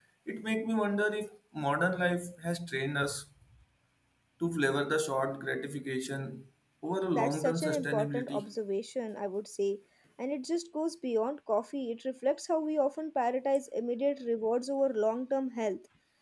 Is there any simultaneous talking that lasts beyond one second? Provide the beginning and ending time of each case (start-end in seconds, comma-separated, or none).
7.1-8.5